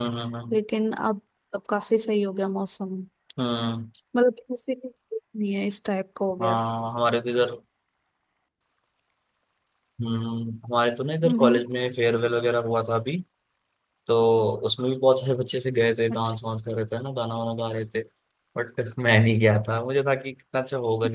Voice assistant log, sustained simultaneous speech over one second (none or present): none